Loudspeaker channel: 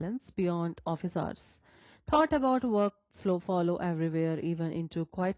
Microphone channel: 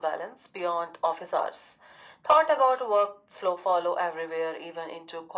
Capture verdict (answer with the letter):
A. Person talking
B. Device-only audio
B